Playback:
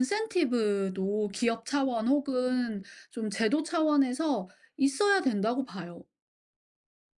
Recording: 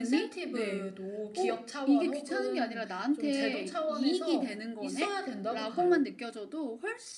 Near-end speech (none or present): present